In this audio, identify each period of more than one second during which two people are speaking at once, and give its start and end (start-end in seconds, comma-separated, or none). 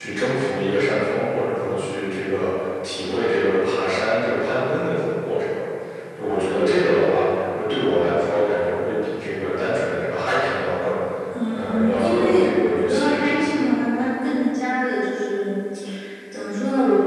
11.5-13.6